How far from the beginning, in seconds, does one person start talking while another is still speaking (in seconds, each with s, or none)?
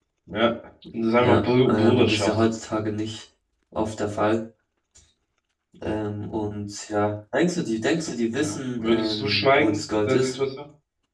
1.2 s